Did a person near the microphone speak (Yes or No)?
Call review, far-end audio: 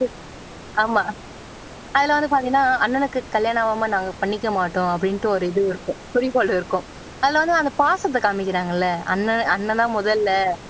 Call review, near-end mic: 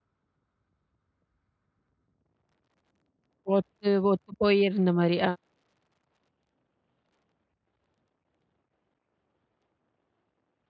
Yes